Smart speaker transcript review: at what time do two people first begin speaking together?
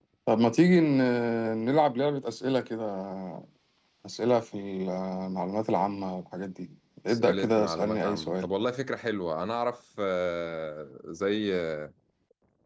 7.1 s

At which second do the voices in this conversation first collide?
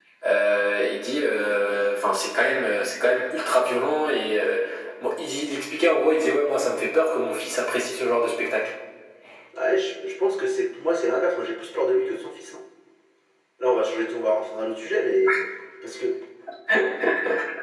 none

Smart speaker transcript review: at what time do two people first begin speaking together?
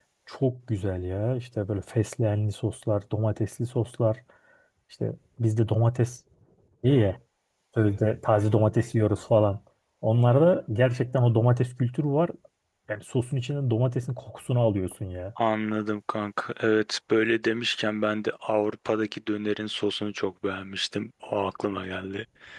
none

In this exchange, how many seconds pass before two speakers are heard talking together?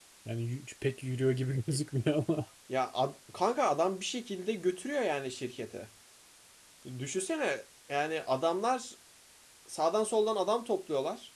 none

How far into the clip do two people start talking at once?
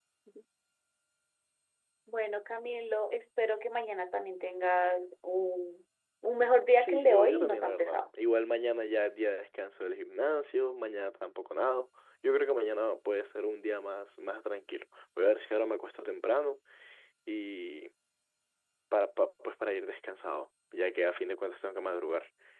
6.7 s

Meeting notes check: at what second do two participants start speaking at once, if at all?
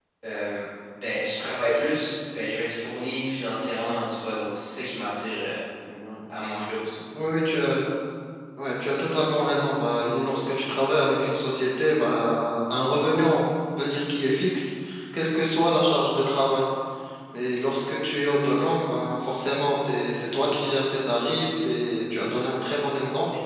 none

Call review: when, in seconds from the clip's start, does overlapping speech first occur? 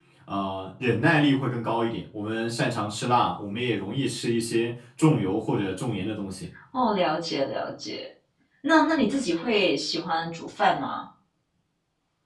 none

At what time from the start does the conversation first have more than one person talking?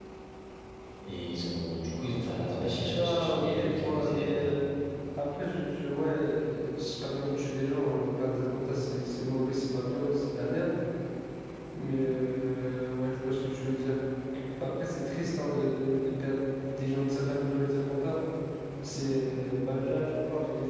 2.9 s

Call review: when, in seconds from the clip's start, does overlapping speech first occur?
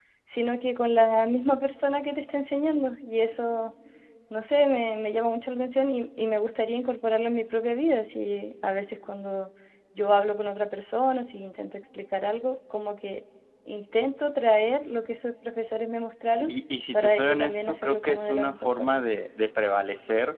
16.9 s

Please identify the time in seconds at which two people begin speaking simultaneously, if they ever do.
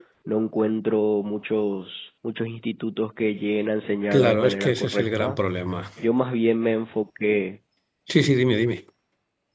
4.1 s

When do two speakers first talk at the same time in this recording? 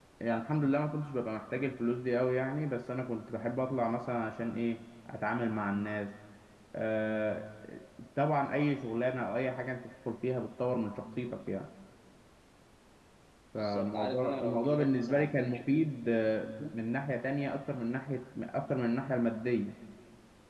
13.6 s

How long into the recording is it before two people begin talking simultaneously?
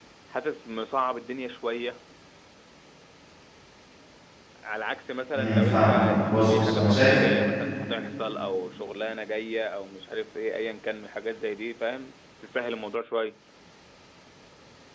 5.3 s

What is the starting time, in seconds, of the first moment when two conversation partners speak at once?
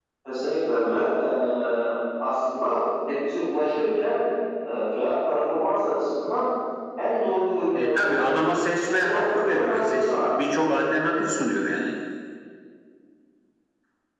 7.8 s

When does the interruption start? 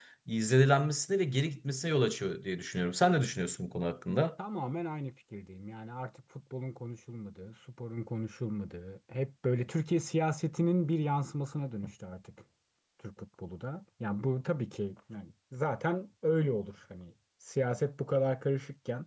none

